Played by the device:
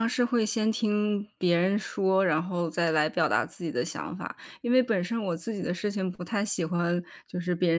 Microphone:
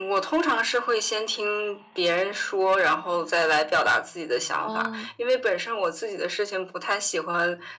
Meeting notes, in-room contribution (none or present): present